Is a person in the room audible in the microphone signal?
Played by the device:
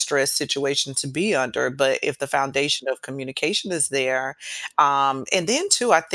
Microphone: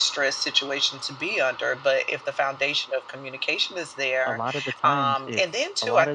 Yes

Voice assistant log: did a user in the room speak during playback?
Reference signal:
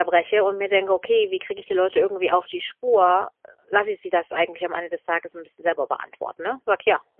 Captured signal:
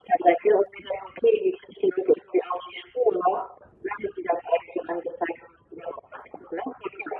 No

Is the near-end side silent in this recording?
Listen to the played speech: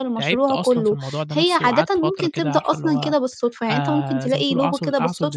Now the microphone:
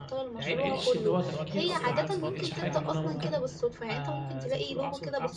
No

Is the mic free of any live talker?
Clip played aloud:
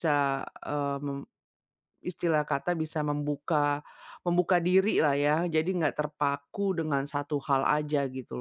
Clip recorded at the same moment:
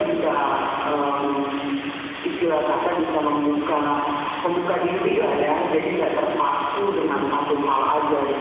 Yes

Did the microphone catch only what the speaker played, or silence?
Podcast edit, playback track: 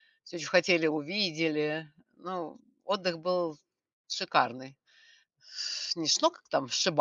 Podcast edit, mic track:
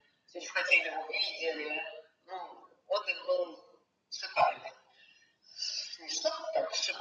Yes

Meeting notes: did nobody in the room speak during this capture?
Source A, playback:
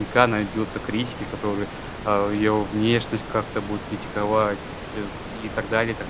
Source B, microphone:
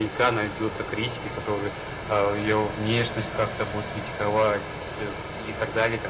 Yes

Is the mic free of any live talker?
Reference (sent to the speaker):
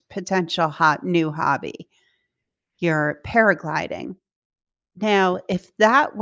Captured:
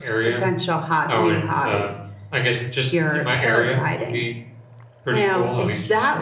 No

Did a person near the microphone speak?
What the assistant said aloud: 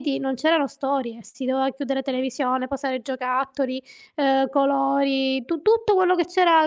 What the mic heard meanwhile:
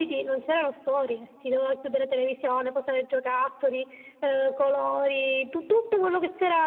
No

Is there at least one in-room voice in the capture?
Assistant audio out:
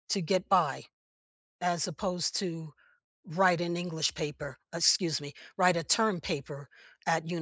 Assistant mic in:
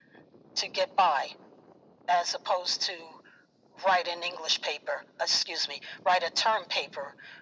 No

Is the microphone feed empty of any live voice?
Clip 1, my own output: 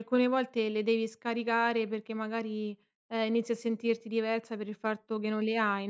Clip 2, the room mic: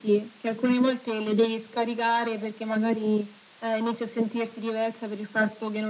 Yes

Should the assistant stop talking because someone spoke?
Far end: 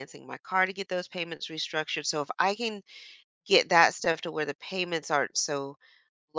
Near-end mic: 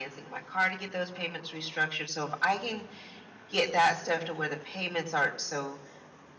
No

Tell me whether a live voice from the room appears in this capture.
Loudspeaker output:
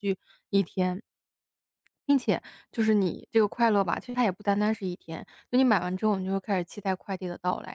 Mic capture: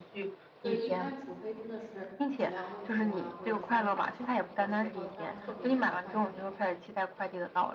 Yes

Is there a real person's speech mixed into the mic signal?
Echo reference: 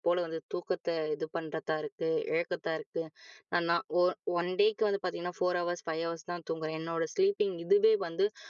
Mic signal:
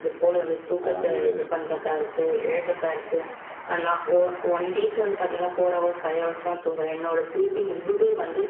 Yes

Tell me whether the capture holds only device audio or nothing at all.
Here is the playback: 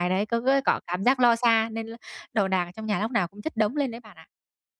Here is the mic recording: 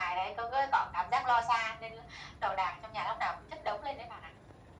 Yes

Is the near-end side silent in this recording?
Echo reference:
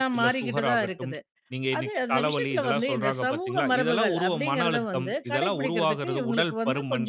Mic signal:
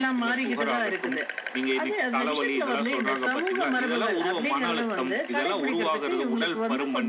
Yes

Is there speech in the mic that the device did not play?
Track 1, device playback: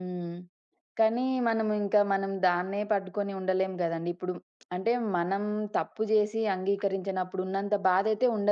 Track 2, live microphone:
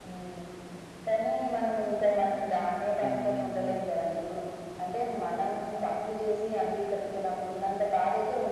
Yes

